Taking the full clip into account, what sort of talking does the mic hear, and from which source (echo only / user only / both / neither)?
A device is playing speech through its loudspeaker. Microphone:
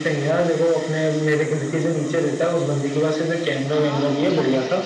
both